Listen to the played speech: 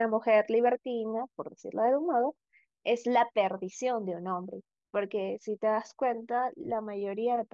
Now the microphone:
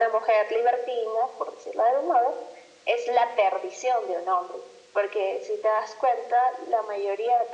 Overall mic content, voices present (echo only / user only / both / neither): echo only